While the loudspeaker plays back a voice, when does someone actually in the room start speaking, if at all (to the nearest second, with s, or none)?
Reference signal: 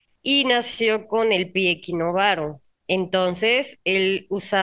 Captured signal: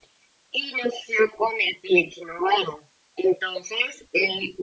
none